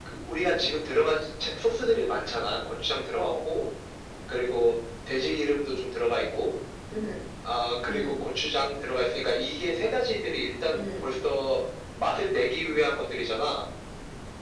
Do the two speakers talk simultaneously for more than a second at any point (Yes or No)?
No